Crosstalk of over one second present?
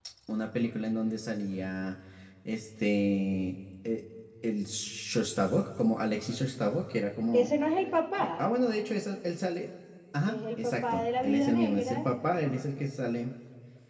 Yes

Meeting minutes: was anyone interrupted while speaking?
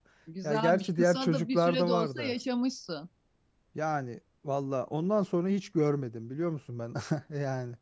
Yes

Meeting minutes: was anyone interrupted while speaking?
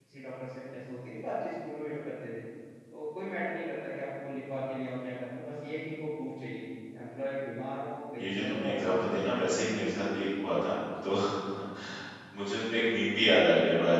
Yes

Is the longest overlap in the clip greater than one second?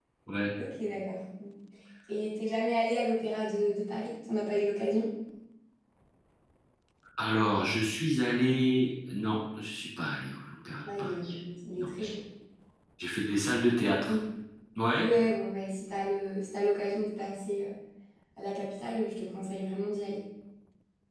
No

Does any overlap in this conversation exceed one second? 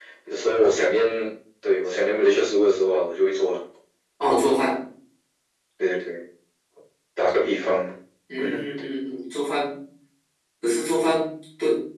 No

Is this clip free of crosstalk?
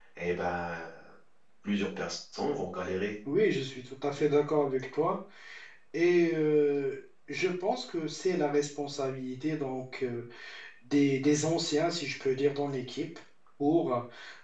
Yes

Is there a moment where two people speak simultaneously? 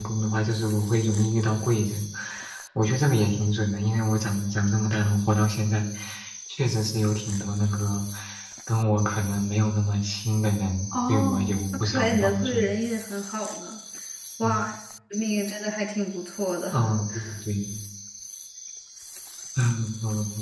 Yes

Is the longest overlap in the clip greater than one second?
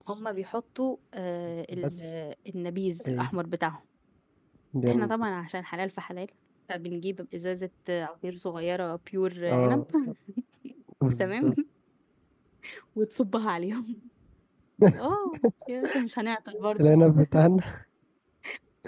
No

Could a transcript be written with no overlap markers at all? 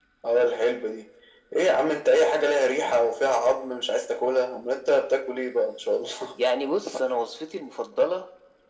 Yes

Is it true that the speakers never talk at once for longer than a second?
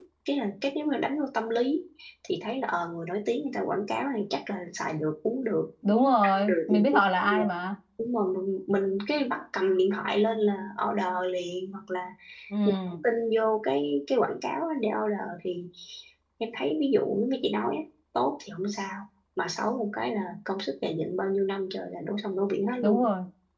No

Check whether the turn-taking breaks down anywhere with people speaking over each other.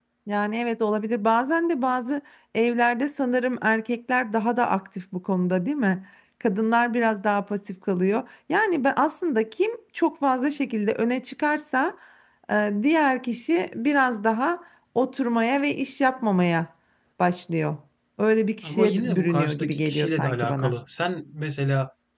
Yes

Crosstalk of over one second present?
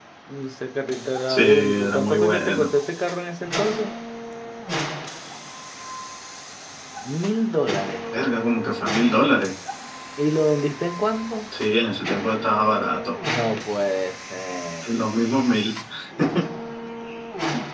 Yes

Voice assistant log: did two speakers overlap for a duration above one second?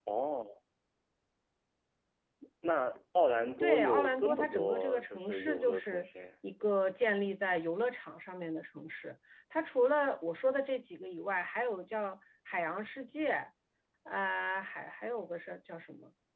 Yes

